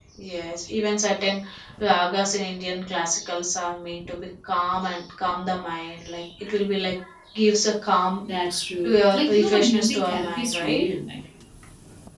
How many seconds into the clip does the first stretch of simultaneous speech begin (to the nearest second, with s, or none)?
9 s